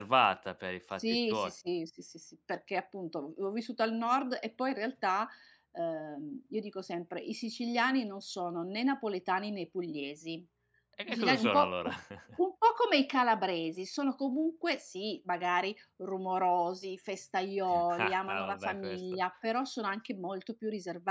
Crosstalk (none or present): present